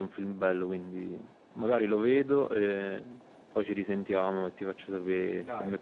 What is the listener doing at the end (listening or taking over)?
taking over